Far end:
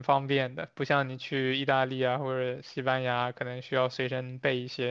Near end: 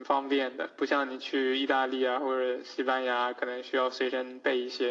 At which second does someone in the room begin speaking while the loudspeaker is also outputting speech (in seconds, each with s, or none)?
none